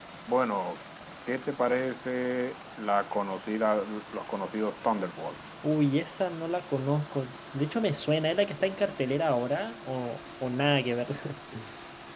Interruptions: none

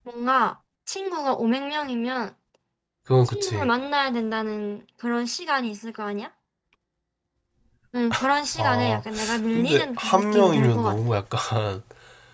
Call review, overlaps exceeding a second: present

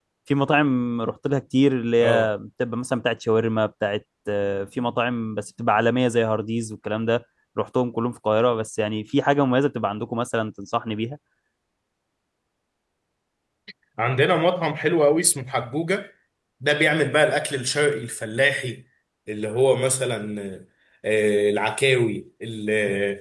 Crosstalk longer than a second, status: none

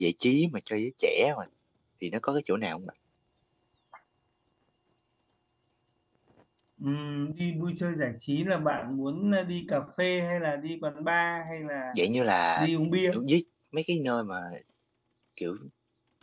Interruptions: none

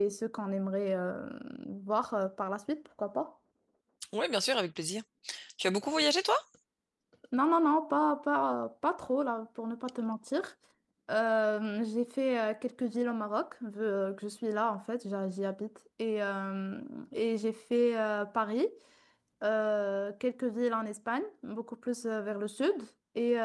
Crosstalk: none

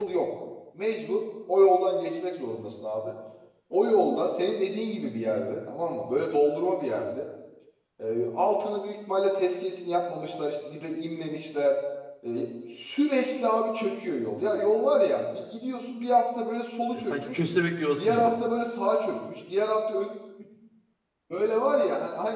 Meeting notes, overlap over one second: none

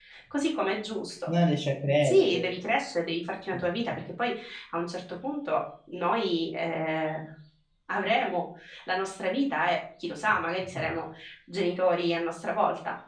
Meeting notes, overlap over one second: none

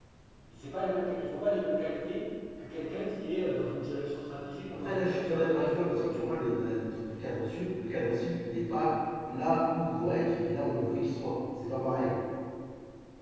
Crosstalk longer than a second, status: present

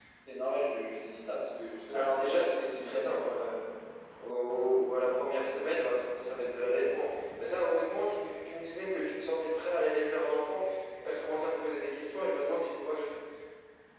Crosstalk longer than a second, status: present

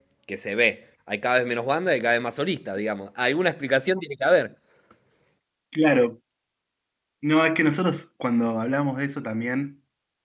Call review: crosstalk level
none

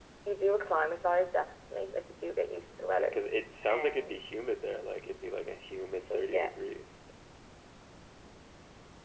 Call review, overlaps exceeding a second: none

